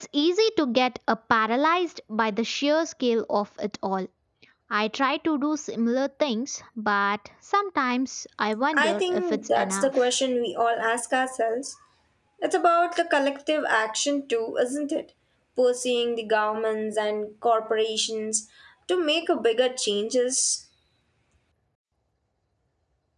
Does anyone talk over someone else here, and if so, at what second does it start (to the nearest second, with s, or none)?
9 s